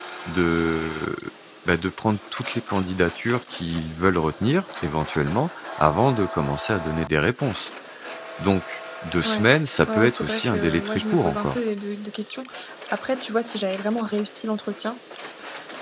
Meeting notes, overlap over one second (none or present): present